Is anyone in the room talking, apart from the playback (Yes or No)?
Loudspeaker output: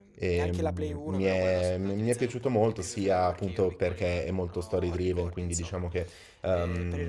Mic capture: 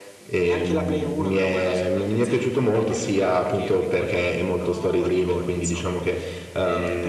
No